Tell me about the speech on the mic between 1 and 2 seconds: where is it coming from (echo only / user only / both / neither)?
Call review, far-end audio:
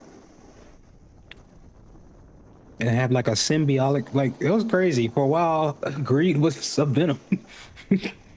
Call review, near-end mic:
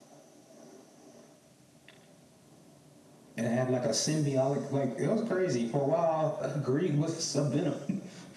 neither